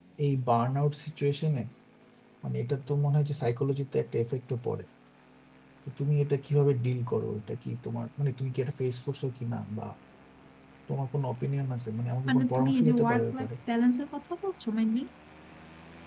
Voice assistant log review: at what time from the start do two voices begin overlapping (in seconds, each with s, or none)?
12.2 s